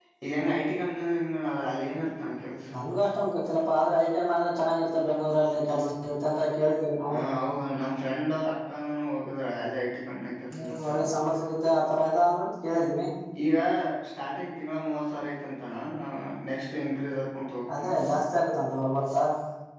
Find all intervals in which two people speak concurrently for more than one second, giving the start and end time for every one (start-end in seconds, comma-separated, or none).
none